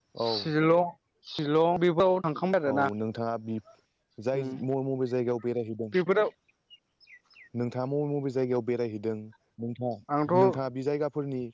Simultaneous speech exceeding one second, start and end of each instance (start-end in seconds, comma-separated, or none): none